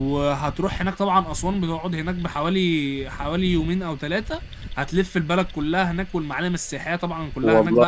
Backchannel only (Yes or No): Yes